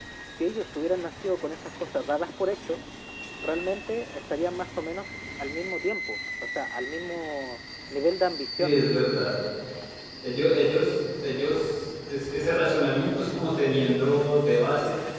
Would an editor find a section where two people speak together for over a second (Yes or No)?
No